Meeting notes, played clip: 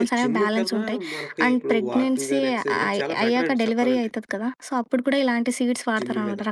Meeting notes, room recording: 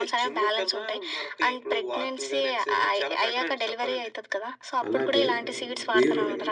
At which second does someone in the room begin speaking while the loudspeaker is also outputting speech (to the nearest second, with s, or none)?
5 s